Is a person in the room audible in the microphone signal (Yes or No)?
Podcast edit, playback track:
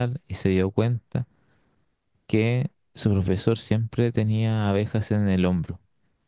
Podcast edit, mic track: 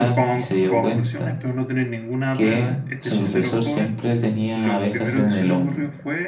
Yes